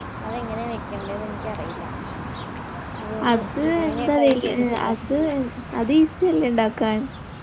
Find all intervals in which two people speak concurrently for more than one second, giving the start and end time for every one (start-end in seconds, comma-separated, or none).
3.3-4.9